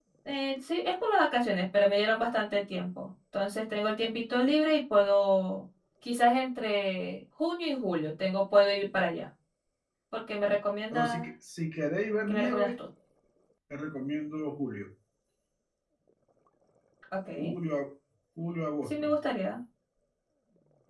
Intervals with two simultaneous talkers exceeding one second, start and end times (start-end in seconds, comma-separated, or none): none